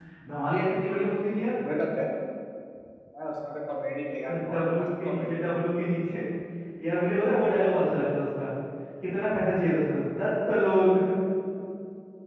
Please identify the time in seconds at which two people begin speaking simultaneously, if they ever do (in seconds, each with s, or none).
4.3 s